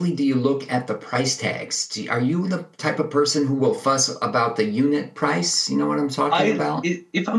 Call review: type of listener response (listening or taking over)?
taking over